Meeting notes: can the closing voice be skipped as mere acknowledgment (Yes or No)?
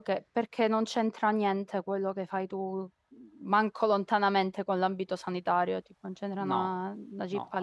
No